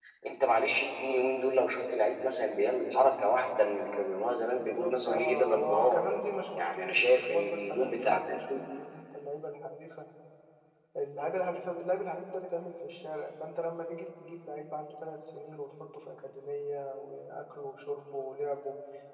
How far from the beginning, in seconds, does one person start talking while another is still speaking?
5 s

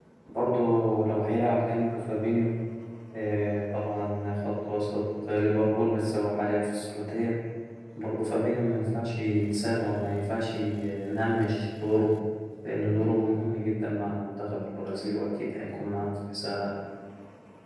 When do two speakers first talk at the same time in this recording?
none

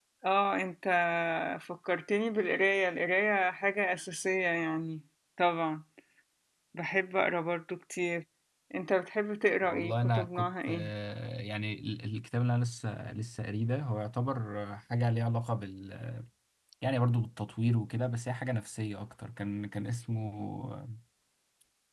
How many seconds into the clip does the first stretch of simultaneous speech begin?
10 s

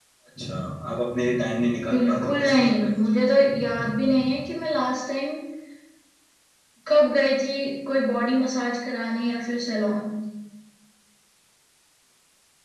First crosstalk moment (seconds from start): 2 s

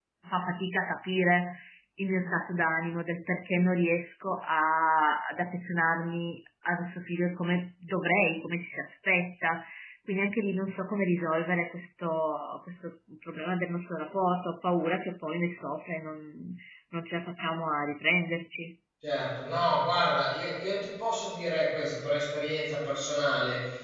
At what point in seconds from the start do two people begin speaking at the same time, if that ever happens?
none

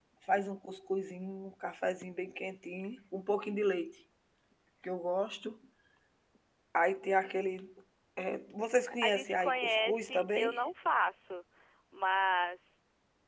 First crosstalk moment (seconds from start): 9 s

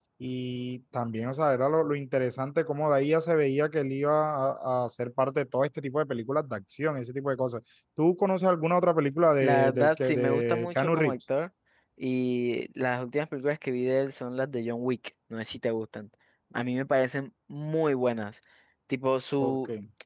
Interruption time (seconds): 9 s

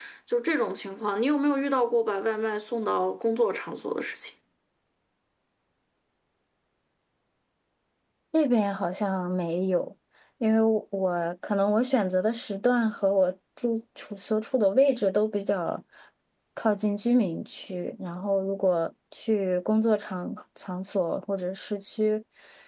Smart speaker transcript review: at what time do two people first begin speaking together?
none

